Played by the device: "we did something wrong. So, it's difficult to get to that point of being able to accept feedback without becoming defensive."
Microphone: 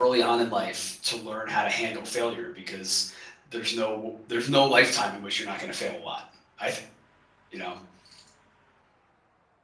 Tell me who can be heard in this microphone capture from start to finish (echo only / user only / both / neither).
user only